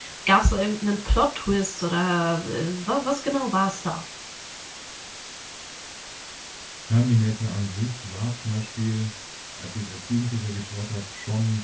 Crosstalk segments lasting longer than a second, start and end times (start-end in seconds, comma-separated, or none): none